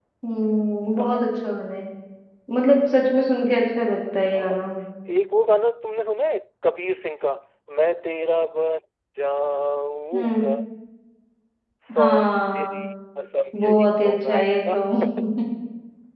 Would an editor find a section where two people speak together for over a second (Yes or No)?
Yes